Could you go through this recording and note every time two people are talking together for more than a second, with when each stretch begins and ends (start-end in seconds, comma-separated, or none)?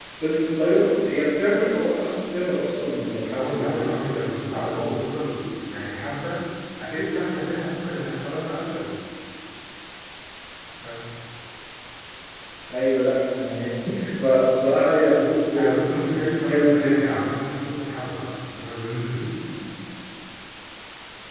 3.4-4.9, 15.8-17.2